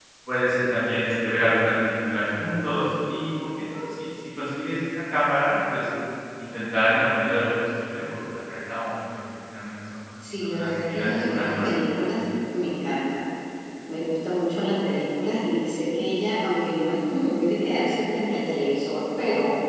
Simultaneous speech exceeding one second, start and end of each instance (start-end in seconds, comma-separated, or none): 10.4-12.1